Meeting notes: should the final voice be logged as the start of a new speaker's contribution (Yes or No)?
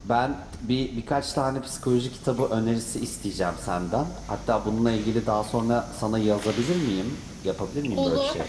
Yes